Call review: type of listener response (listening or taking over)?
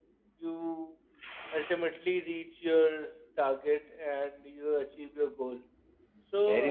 taking over